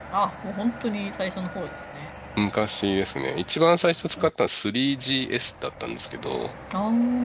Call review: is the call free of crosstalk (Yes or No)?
Yes